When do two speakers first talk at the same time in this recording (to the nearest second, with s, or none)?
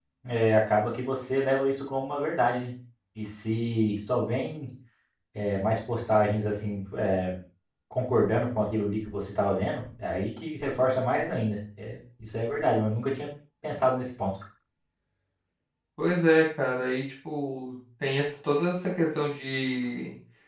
none